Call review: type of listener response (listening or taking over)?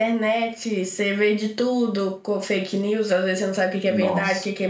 listening